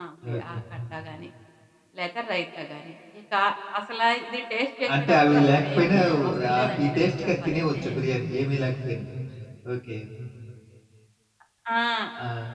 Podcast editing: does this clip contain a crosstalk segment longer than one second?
Yes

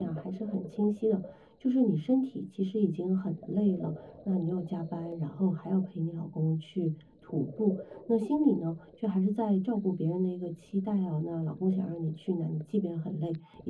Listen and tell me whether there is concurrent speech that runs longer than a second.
No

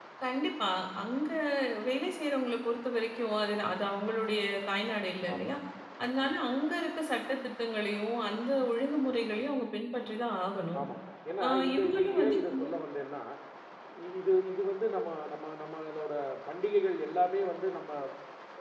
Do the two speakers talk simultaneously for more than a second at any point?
Yes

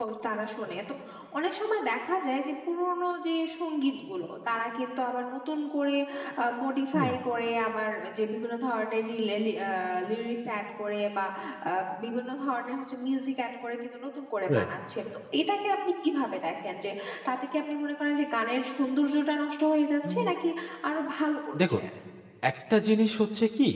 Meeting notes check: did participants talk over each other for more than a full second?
No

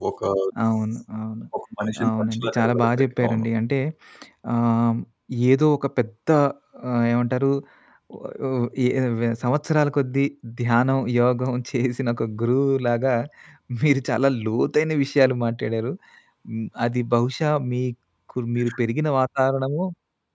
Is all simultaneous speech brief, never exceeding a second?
No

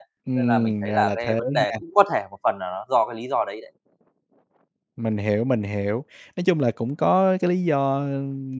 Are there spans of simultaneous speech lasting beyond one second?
Yes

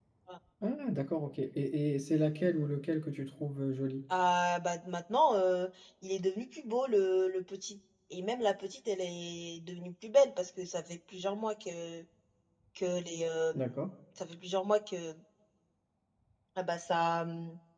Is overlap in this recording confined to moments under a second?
Yes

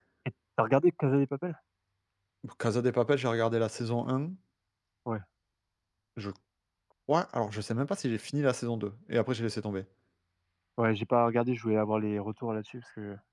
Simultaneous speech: No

